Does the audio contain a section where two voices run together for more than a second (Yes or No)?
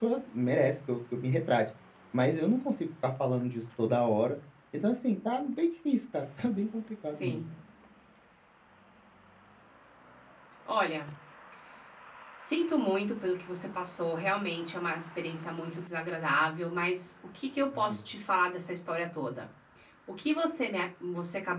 No